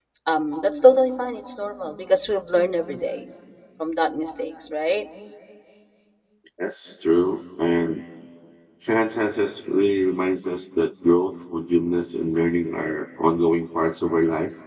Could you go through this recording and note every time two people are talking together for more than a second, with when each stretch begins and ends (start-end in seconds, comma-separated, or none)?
none